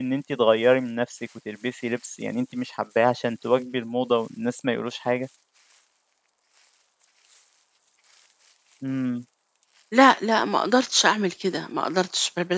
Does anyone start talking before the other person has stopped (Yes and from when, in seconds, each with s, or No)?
No